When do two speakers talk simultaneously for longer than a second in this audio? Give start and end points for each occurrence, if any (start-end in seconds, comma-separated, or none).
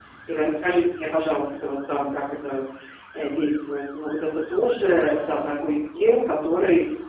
none